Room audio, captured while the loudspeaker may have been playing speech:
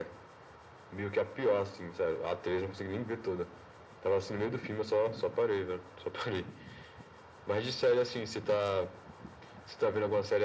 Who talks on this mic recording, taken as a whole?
echo only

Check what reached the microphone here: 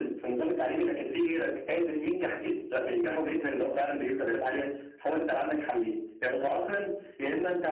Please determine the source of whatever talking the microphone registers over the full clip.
echo only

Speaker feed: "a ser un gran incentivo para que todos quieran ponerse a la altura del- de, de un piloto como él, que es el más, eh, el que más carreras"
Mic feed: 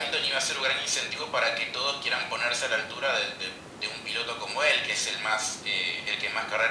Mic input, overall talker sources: echo only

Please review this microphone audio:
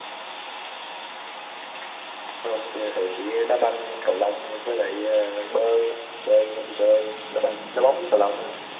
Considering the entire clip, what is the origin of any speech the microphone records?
echo only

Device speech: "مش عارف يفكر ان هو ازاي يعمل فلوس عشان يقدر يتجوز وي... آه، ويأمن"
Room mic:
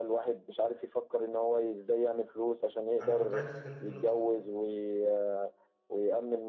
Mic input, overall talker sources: both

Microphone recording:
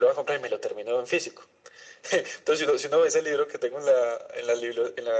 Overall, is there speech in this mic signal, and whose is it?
echo only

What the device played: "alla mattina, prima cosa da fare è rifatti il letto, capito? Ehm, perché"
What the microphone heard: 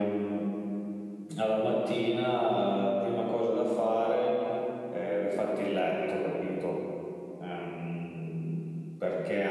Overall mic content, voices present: echo only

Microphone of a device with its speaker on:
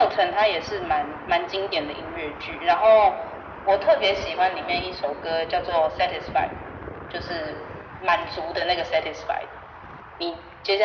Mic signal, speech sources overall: echo only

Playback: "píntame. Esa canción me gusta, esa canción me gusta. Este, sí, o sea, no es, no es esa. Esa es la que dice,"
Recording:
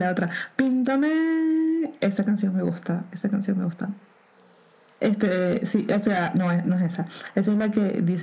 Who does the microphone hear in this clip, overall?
echo only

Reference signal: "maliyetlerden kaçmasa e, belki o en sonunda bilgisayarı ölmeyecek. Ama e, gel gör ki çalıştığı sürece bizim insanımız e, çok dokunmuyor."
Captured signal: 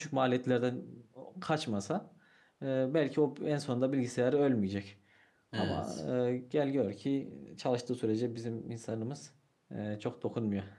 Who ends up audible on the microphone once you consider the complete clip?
both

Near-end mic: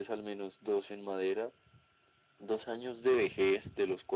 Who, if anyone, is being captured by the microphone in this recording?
echo only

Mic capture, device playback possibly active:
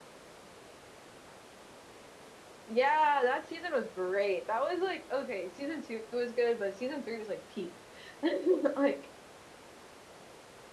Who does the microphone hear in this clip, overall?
user only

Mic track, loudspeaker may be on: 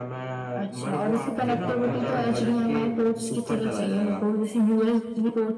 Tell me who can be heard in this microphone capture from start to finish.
both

